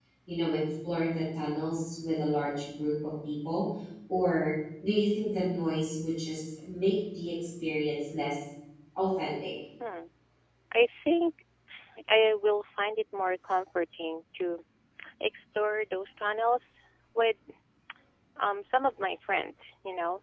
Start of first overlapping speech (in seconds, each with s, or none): none